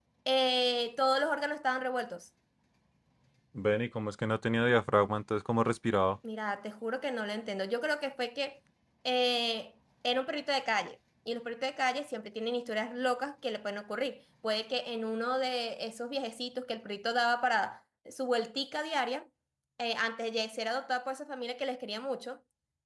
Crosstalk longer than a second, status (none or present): none